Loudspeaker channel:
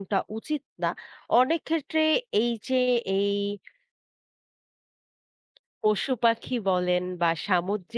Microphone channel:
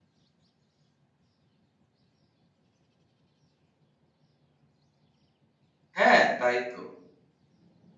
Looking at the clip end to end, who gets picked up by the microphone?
user only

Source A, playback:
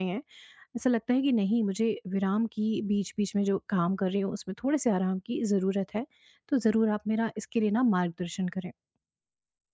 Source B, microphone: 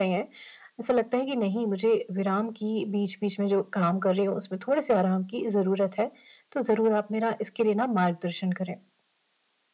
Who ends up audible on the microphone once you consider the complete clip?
echo only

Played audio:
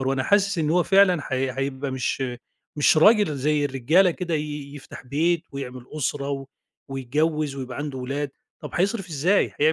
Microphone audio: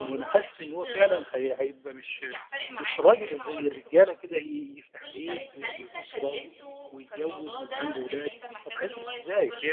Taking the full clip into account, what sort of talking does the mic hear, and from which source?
both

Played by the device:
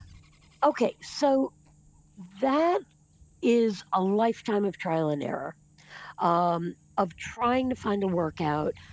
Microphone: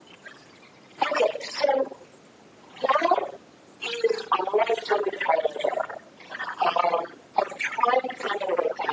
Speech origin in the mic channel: echo only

